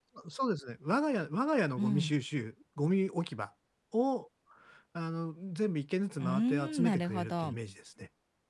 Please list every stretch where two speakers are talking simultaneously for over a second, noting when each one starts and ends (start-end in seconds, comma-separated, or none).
6.2-7.5